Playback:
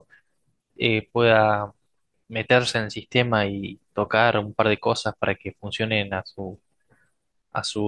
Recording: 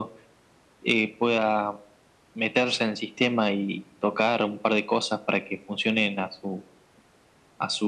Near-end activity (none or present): none